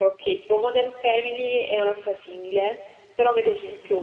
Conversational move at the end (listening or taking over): listening